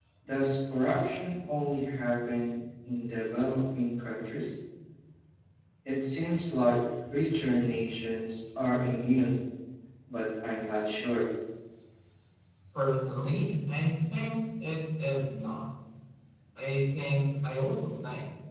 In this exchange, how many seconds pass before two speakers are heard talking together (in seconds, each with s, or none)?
none